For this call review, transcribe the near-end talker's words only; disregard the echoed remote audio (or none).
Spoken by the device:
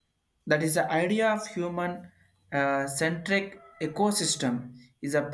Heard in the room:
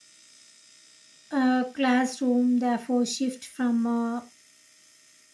uh, classroom therefore shift from a